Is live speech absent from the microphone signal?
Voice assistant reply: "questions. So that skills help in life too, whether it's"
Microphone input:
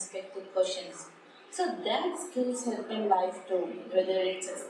Yes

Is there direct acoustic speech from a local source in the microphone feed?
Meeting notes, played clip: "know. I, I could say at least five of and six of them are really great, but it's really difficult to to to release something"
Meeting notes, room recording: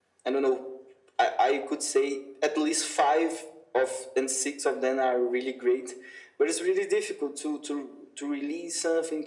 No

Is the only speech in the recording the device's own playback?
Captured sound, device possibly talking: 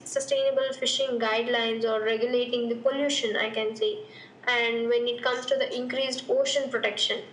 Yes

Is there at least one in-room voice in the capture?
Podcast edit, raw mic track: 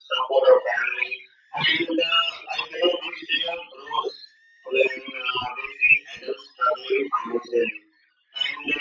No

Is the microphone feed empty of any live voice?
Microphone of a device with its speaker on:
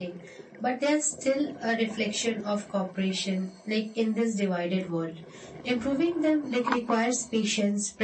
No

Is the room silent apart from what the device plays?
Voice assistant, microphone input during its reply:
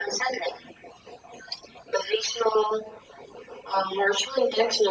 Yes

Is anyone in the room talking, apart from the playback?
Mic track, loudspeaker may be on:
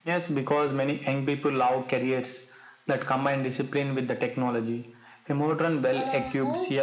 Yes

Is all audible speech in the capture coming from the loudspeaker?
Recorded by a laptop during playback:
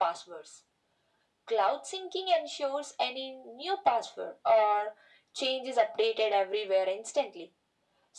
Yes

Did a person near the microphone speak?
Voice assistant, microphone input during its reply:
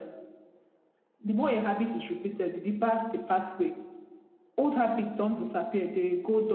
No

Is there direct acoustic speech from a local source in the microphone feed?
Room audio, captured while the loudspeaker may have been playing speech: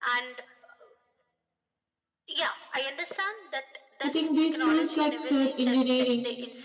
Yes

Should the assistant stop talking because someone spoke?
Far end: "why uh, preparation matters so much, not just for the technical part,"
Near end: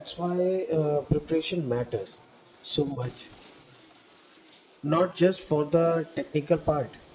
No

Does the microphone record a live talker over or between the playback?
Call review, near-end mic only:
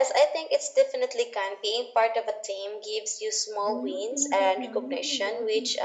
Yes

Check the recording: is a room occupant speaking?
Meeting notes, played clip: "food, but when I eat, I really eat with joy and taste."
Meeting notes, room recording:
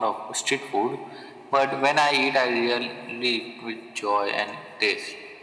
No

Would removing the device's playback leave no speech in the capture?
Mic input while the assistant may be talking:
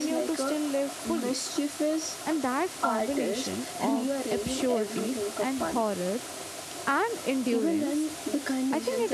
No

